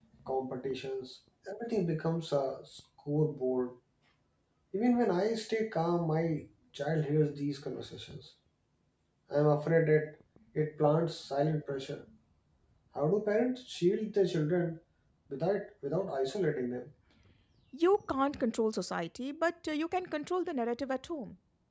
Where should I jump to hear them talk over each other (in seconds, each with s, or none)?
none